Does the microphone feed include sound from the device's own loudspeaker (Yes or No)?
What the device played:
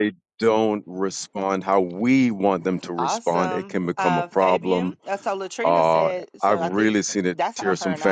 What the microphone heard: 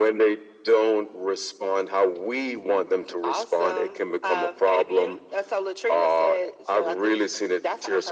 Yes